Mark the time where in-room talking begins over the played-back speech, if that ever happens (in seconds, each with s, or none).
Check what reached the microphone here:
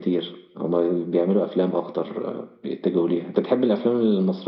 none